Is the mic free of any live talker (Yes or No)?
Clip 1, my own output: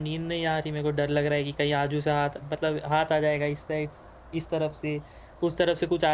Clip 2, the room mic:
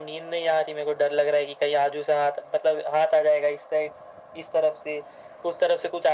Yes